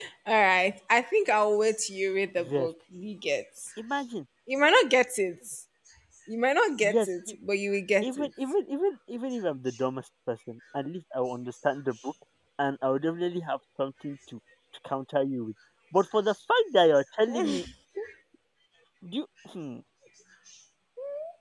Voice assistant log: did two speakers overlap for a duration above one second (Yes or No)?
No